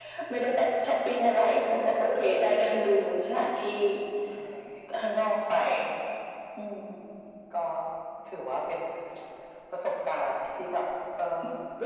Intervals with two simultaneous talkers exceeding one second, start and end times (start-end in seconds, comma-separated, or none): none